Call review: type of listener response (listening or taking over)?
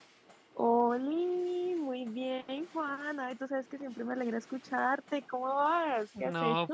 taking over